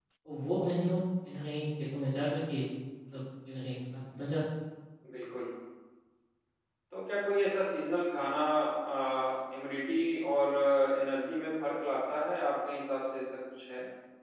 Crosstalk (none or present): none